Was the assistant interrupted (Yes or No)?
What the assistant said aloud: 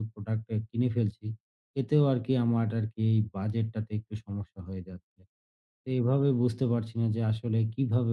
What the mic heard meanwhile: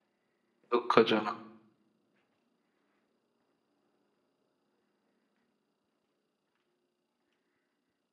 Yes